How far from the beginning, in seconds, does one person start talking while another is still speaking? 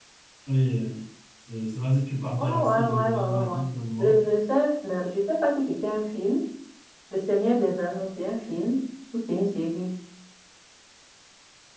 2.4 s

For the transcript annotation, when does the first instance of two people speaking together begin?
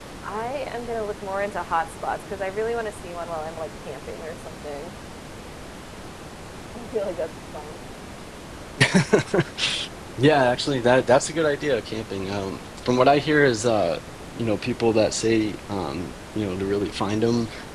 none

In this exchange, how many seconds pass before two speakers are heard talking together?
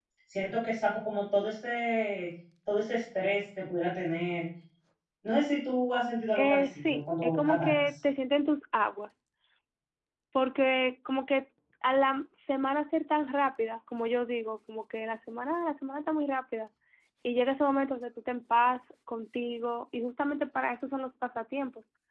6.3 s

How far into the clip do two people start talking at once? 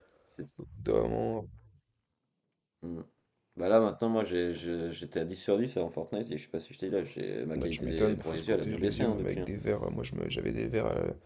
7.6 s

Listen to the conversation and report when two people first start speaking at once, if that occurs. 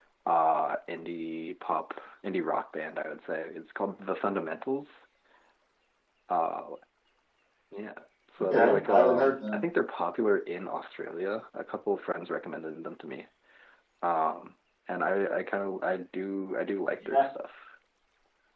8.4 s

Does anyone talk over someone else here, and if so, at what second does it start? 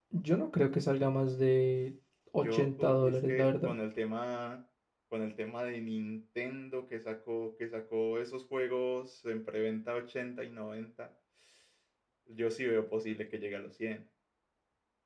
2.4 s

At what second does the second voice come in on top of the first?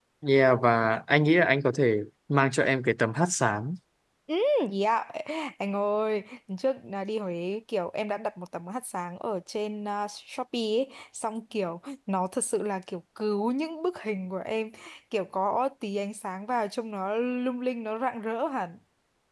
none

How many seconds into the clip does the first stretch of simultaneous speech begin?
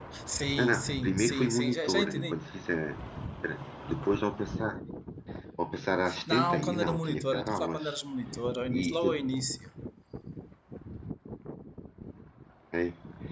0.6 s

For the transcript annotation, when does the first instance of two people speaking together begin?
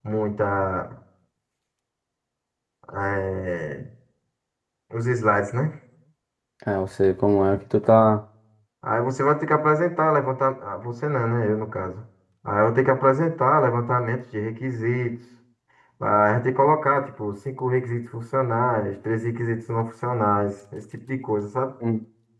none

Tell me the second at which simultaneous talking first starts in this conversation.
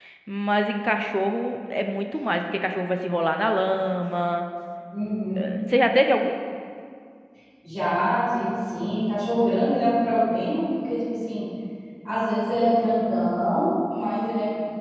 none

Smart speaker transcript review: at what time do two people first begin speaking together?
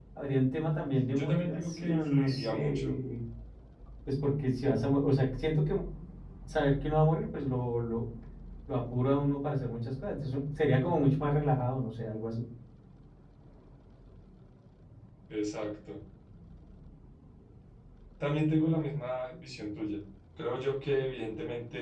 1.2 s

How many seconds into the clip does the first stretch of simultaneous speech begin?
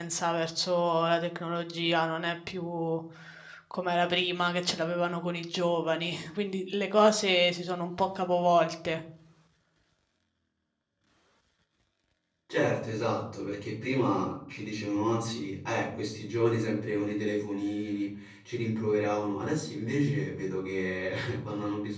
none

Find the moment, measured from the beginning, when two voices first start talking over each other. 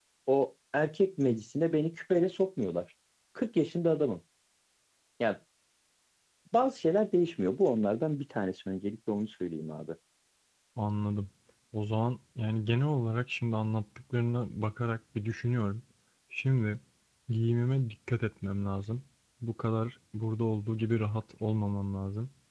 none

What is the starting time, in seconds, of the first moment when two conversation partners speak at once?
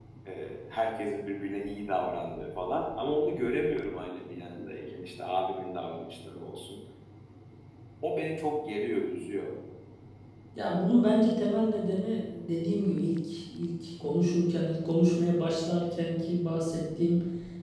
none

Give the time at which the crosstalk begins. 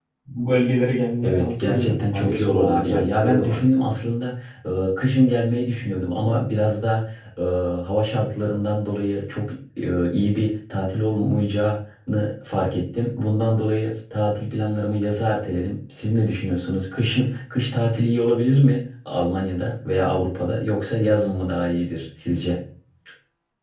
1.2 s

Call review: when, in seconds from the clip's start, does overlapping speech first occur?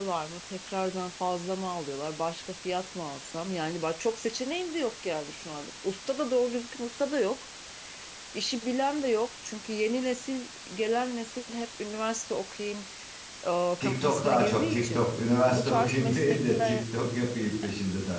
13.8 s

